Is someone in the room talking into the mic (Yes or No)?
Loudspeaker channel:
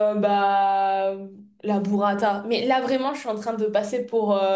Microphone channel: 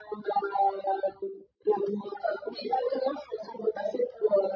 No